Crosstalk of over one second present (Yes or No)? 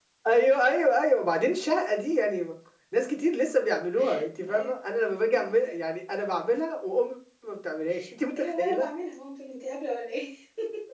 No